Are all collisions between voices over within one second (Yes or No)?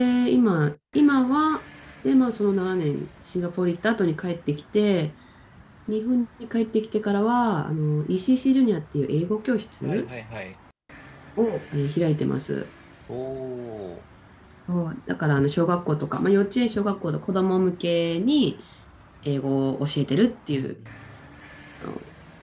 Yes